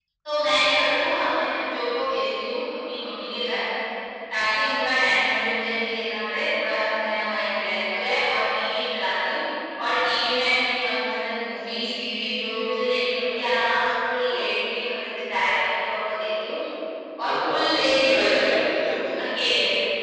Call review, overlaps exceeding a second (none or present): present